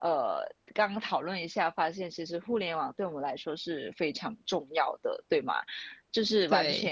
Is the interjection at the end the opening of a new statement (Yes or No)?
No